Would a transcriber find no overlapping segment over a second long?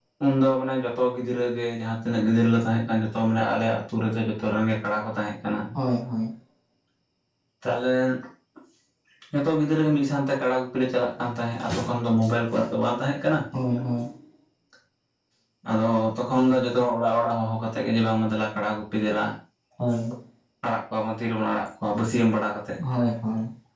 Yes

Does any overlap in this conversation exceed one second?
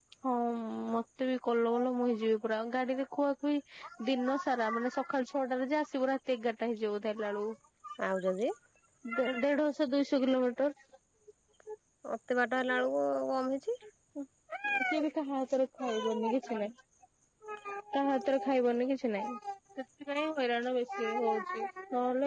No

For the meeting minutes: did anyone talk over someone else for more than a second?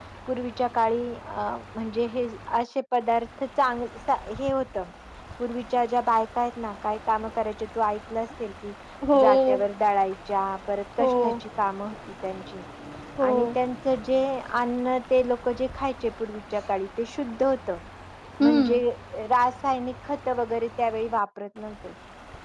No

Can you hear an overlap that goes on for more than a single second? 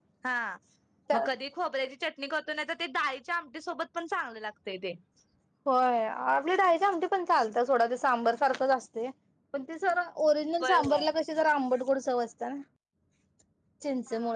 No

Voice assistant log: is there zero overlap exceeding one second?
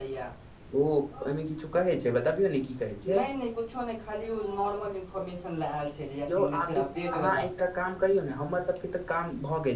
Yes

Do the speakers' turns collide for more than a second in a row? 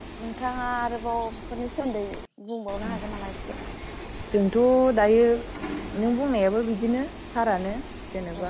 No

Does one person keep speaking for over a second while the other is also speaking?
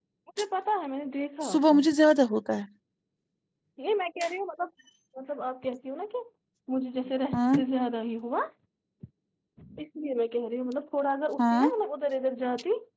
No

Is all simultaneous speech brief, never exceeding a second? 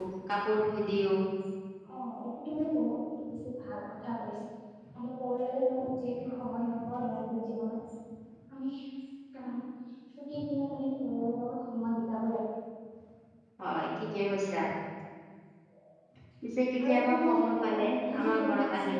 No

